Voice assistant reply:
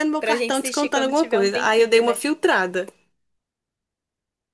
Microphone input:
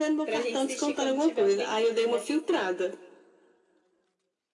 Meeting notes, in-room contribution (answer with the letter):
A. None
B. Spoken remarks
A